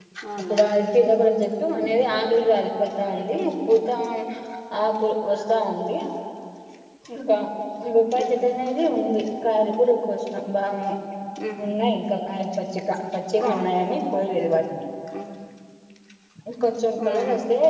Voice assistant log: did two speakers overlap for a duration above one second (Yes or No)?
No